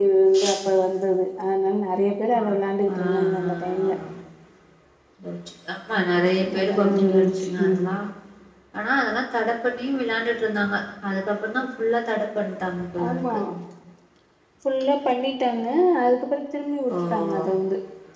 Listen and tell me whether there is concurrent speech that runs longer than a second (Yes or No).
Yes